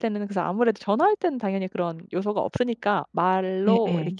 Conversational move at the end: listening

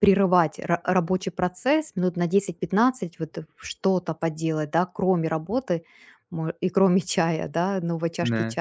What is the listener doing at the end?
listening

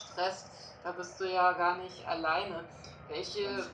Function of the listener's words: listening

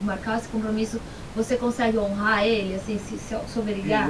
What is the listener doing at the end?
taking over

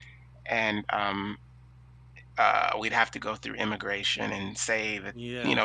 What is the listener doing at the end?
listening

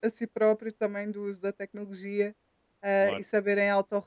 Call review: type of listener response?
listening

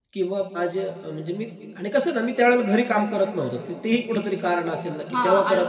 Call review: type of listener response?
taking over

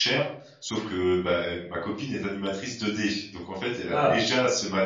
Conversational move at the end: listening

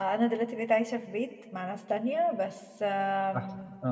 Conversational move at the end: listening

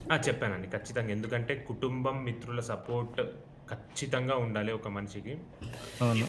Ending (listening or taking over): taking over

